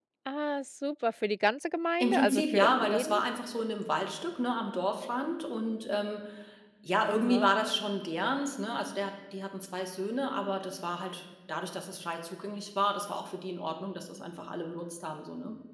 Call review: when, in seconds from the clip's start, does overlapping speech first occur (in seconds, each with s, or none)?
2.0 s